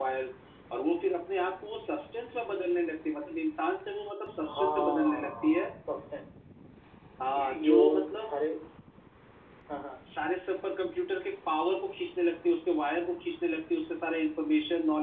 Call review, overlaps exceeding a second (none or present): present